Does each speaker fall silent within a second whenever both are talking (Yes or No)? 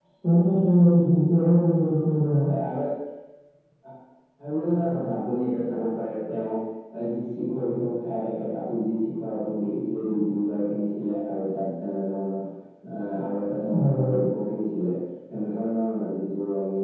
Yes